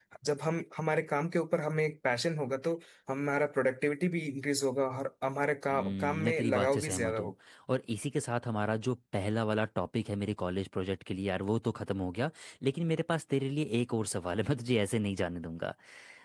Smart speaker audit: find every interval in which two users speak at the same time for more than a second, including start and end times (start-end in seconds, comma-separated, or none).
5.7-7.3